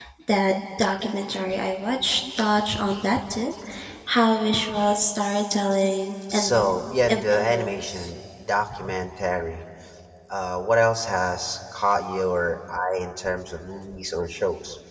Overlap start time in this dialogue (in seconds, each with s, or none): 6.3 s